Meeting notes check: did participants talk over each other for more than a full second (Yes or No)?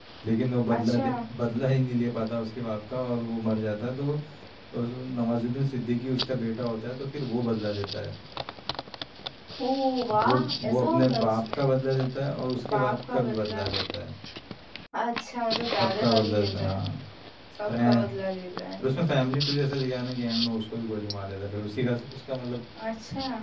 Yes